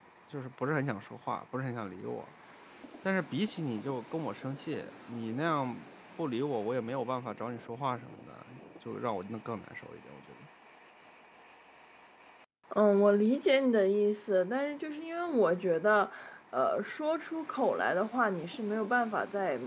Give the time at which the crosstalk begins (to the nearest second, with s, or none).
none